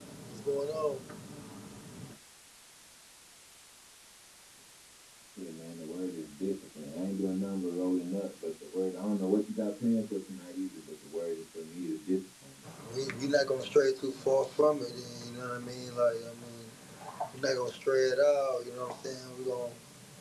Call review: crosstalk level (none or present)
none